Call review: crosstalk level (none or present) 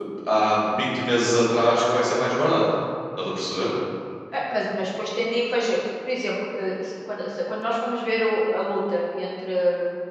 none